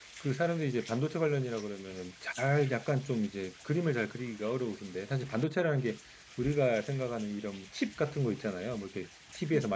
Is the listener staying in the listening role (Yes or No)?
Yes